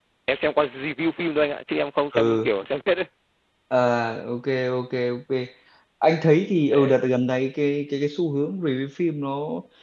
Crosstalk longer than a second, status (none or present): none